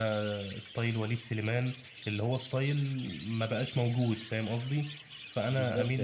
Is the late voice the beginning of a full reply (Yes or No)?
Yes